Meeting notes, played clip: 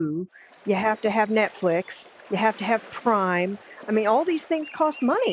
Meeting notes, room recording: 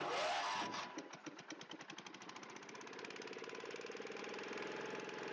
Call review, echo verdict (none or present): none